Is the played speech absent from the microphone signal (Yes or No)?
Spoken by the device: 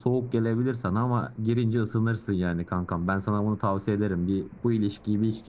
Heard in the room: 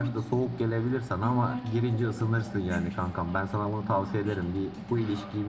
No